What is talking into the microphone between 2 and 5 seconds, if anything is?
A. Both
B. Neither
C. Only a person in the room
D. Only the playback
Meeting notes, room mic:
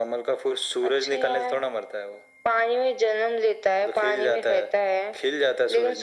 D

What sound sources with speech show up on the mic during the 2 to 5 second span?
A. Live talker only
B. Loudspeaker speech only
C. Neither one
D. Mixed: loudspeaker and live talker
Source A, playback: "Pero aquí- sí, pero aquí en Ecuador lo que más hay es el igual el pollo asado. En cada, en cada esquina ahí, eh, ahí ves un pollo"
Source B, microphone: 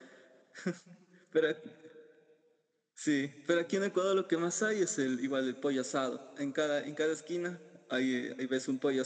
B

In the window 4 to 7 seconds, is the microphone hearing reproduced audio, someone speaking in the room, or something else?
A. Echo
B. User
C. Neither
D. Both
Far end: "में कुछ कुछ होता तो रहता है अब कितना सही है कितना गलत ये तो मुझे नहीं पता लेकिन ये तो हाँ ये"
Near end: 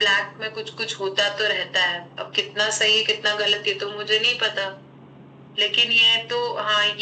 A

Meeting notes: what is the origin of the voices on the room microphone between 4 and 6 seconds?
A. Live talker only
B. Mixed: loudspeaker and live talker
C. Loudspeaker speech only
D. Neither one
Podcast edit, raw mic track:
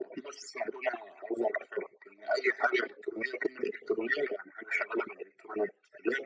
C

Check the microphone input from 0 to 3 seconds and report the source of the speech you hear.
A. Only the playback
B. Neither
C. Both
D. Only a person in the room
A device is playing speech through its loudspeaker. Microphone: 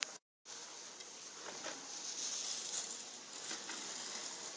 B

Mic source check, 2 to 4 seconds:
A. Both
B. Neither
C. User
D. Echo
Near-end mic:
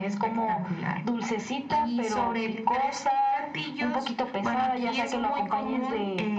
D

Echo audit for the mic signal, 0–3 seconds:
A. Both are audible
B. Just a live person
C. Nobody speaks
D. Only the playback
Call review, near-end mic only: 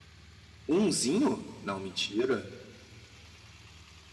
B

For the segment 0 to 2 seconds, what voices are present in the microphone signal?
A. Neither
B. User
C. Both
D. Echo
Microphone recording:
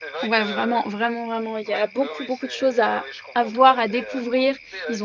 C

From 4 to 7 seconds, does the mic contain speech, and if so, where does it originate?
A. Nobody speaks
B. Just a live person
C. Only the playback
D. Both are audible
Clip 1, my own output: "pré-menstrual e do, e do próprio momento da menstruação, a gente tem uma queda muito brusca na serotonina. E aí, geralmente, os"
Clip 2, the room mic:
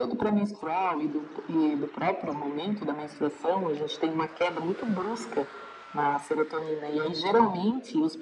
C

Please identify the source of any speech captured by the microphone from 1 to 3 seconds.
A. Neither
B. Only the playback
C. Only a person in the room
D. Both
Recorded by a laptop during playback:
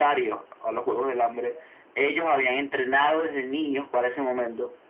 B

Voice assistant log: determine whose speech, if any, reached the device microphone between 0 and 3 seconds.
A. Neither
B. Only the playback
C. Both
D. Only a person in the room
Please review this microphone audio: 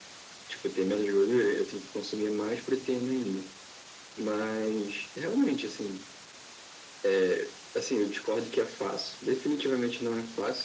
B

